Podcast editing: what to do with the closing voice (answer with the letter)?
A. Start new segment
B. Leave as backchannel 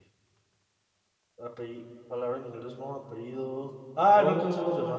A